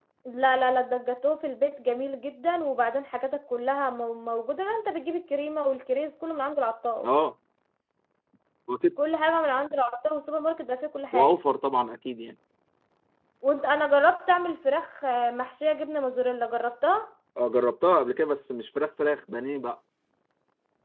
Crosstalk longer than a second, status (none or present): none